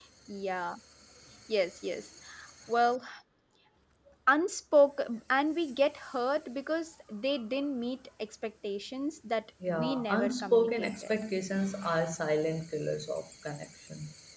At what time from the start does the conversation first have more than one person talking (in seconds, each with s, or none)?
9.6 s